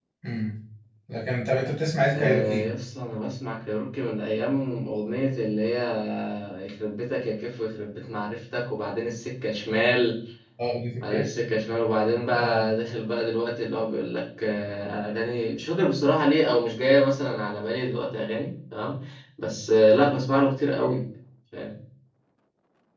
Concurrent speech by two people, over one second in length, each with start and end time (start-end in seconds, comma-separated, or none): none